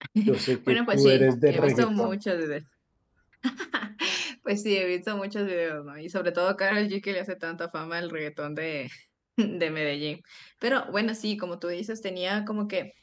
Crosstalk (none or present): present